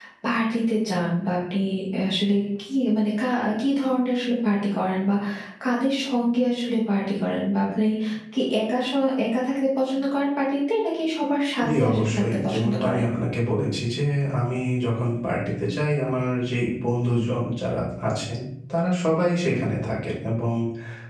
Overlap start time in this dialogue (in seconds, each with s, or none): 11.6 s